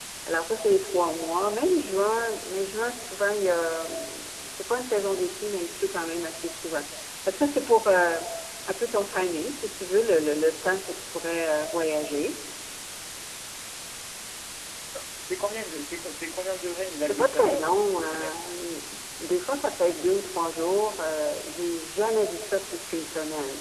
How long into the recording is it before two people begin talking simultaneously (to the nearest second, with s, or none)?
17 s